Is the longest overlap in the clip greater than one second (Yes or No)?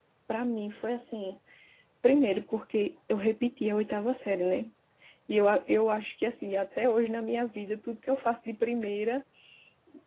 No